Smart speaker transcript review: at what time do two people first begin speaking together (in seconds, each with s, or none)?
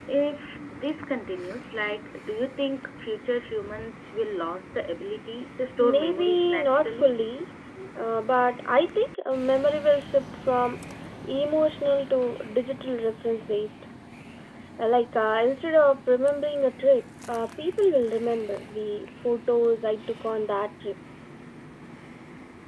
5.8 s